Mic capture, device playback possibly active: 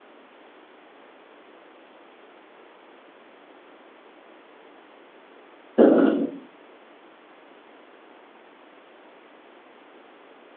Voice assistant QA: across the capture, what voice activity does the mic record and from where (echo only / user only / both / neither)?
user only